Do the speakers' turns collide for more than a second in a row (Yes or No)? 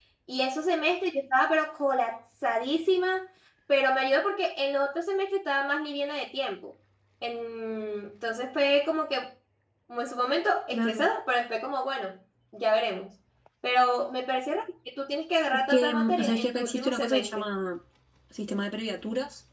Yes